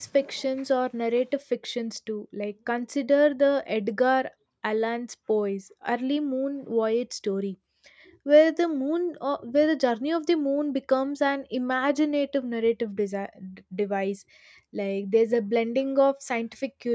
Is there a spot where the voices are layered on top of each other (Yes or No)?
No